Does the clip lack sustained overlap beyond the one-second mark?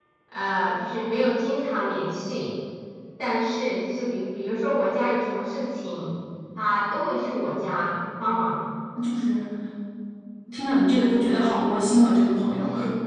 Yes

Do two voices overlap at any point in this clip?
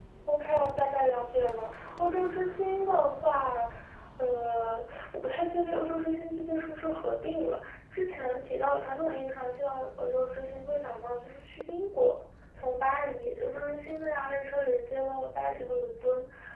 No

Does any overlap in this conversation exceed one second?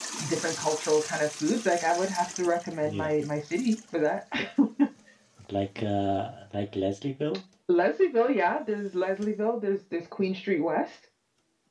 No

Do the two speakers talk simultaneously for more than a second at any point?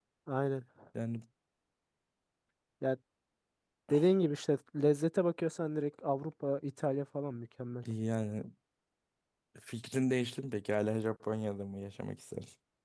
No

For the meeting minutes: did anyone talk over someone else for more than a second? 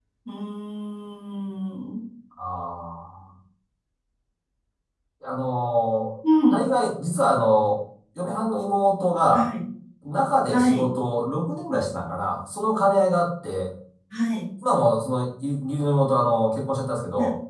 No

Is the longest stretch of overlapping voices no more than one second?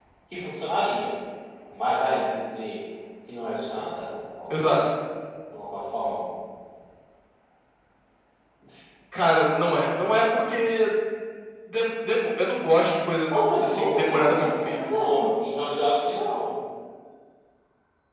No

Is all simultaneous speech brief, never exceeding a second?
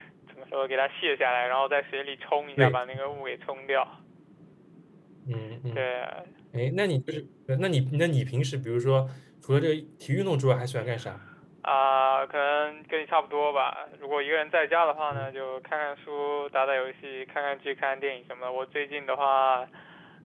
Yes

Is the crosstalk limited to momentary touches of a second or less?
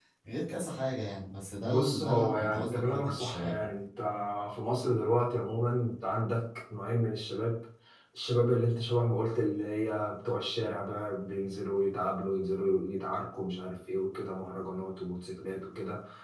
No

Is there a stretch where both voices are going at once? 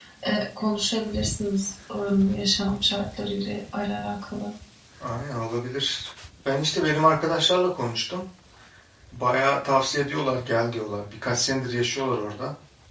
No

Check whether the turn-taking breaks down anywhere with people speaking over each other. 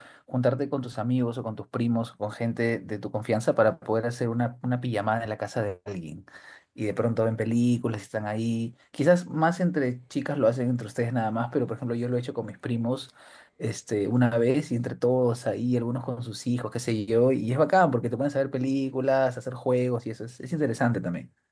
No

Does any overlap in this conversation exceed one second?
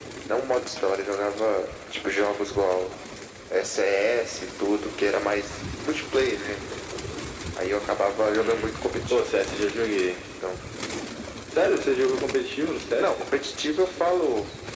No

